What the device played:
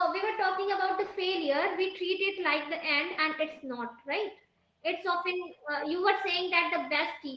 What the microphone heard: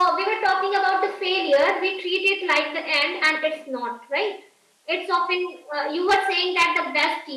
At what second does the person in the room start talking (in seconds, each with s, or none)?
none